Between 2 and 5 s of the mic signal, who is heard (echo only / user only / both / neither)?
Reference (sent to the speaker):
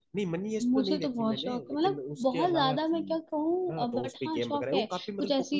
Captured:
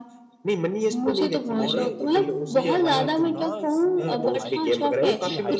both